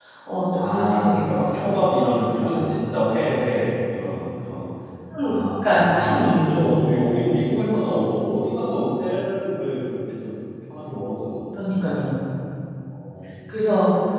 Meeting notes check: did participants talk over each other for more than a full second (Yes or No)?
Yes